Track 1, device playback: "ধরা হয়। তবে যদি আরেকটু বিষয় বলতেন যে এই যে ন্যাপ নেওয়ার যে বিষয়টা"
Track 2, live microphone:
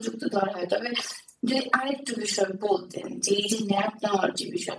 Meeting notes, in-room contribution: none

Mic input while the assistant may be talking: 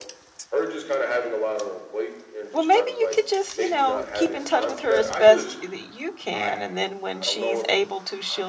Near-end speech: present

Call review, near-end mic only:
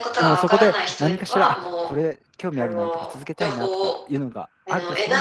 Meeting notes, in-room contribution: present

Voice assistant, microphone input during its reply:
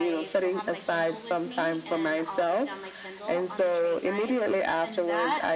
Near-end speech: present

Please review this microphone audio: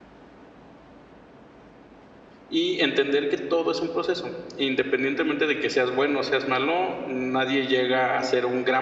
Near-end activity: present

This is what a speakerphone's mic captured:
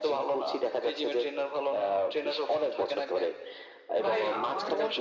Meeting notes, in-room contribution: present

